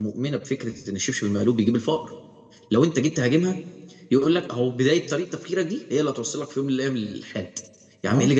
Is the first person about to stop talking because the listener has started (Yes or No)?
No